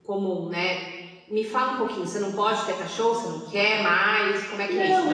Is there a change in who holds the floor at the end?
Yes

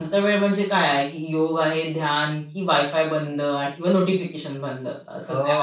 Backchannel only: No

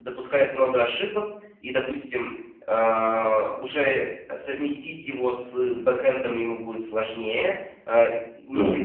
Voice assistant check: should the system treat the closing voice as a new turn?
No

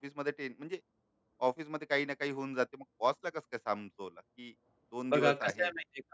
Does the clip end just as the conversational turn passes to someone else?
Yes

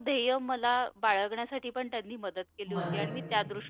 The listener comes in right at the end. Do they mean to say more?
No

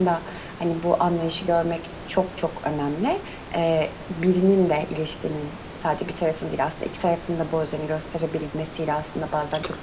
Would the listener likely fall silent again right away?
Yes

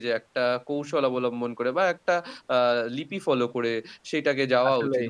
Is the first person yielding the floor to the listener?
No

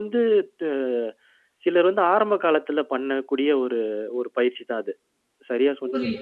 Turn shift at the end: Yes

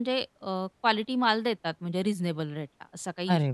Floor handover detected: Yes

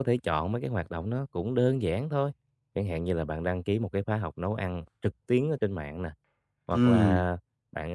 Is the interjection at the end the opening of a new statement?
No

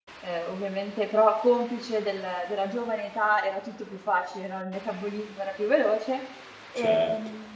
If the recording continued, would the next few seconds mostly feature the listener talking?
No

